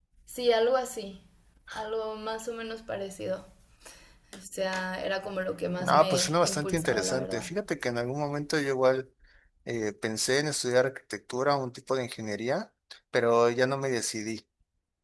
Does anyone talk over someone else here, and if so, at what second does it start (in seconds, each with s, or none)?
5.8 s